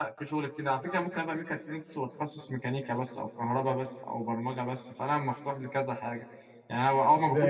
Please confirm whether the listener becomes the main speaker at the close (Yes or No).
Yes